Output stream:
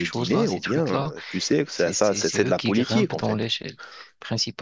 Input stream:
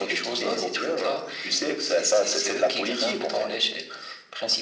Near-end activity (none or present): none